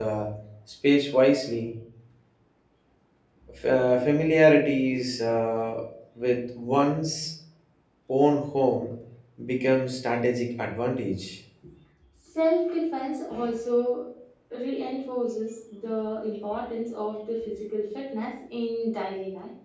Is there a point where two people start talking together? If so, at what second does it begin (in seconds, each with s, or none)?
none